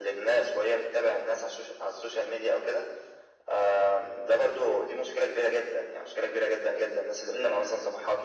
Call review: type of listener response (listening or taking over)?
listening